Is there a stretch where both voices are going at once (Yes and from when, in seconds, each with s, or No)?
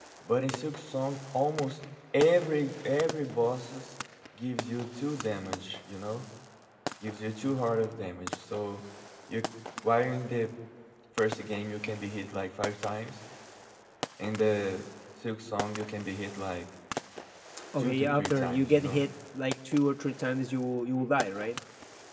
Yes, from 17.8 s